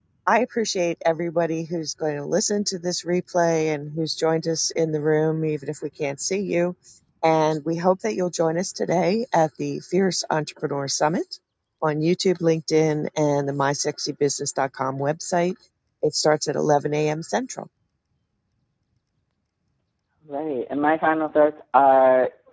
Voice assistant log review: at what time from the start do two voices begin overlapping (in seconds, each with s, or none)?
none